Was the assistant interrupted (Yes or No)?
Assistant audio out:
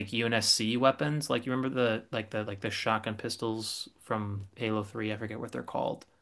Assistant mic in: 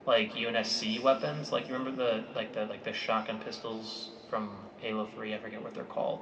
No